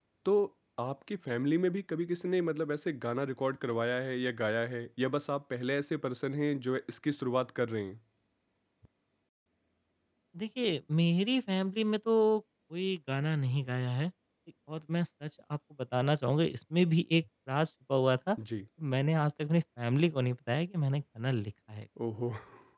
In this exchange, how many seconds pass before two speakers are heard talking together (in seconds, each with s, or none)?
none